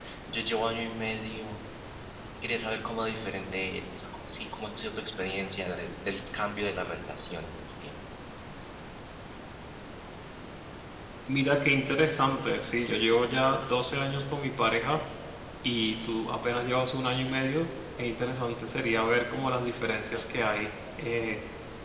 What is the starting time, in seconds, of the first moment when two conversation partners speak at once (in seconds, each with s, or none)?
none